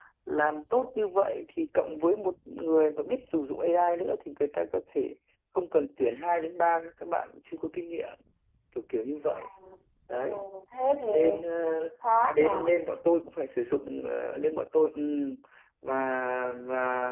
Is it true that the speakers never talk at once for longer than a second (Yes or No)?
Yes